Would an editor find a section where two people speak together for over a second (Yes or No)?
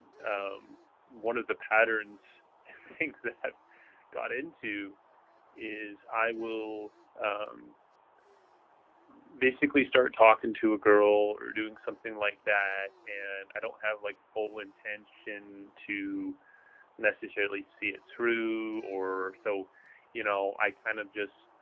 No